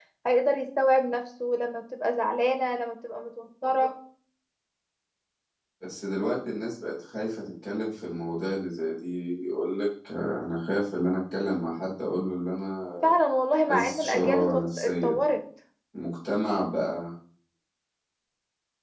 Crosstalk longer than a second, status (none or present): present